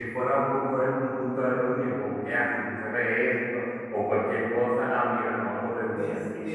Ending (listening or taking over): taking over